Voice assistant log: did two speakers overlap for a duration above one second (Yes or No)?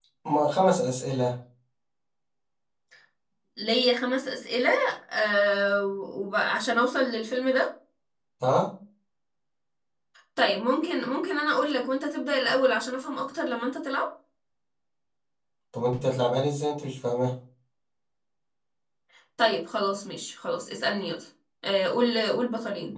No